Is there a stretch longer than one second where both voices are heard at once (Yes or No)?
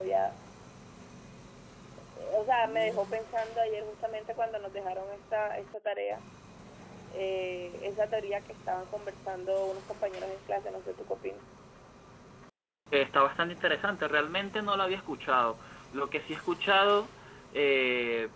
No